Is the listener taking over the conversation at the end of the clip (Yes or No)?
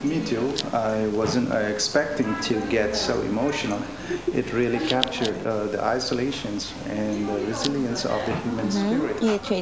Yes